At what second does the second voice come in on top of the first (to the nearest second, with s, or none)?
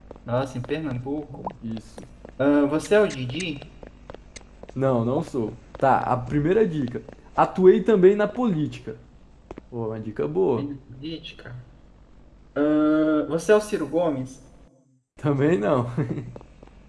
none